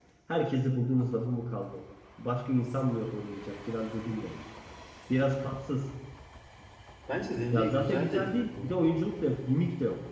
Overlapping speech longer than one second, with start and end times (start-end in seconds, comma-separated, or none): 7.5-9.0